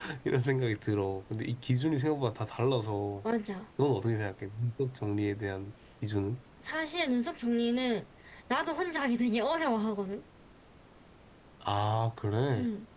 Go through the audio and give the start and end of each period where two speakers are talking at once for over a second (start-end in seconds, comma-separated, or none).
none